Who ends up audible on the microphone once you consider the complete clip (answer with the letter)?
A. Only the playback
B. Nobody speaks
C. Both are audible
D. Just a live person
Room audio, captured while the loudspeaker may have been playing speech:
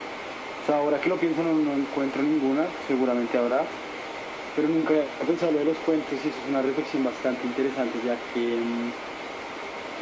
A